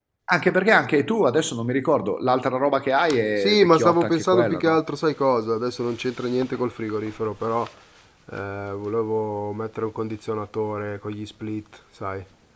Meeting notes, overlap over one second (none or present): present